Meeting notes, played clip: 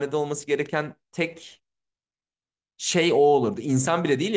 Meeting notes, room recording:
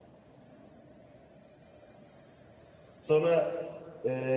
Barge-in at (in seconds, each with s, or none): 3.0 s